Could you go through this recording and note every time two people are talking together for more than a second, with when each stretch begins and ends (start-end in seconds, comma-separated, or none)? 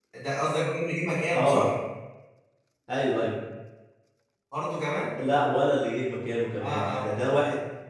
none